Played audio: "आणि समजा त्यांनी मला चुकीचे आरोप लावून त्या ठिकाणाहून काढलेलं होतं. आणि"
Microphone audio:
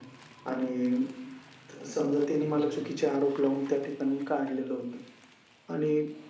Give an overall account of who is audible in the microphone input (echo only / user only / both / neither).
both